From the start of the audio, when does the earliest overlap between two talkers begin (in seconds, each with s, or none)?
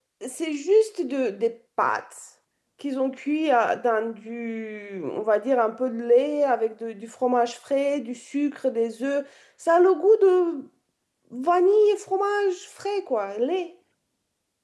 none